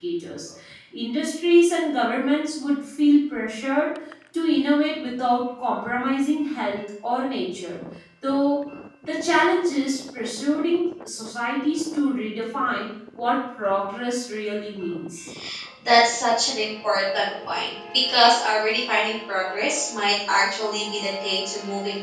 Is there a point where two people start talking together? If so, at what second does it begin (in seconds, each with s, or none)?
none